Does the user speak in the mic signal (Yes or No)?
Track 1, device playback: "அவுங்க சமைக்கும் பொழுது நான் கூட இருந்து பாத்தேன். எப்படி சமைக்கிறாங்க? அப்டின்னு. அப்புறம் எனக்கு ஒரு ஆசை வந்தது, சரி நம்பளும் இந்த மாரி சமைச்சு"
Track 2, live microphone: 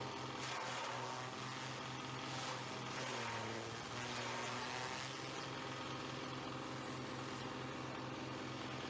No